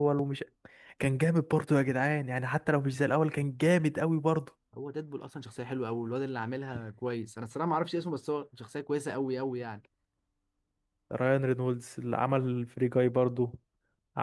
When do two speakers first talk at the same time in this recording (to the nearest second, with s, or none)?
none